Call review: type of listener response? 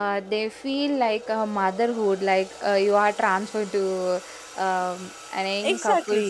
taking over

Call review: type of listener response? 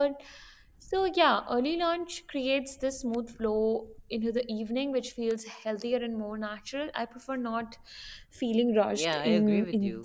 taking over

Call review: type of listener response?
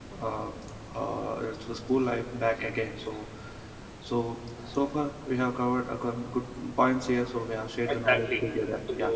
taking over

